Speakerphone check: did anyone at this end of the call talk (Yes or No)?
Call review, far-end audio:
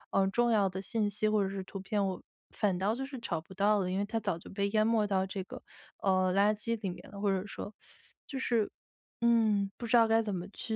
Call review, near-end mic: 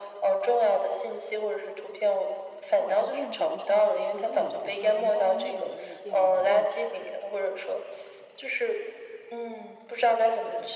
Yes